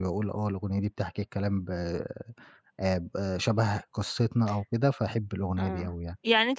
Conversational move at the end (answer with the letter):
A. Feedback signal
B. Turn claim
B